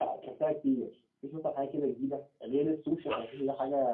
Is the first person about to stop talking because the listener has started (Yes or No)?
No